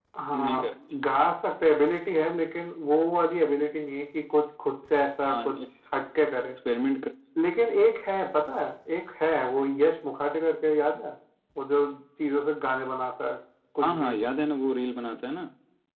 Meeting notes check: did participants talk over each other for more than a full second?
No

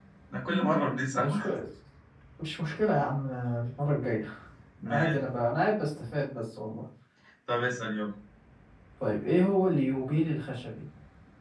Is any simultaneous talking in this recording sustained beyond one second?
No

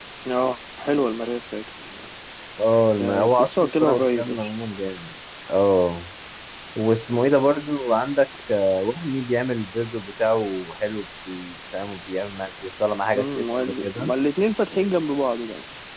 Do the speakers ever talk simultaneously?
Yes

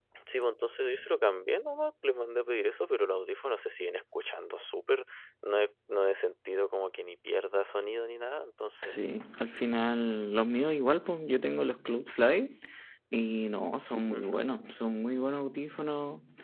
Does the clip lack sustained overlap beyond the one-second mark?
Yes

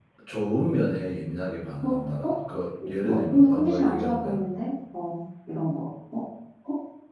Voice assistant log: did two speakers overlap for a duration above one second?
Yes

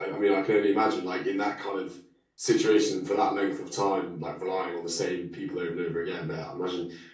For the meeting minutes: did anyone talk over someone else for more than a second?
No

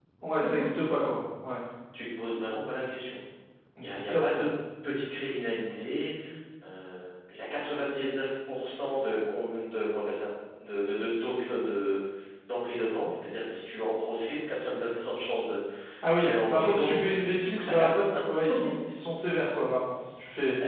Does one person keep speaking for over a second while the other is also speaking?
Yes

